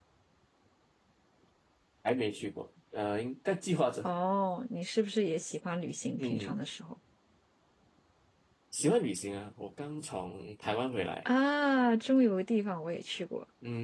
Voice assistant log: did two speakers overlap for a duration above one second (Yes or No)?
No